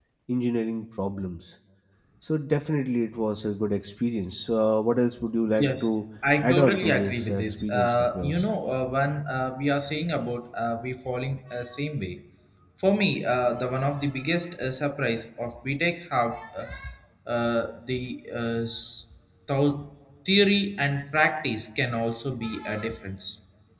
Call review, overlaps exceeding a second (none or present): present